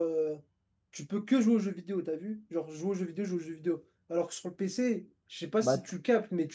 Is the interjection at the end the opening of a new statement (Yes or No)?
No